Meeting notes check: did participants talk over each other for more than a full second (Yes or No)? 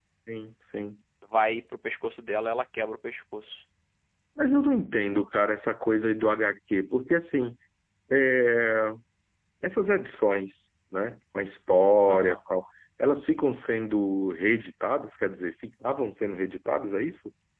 No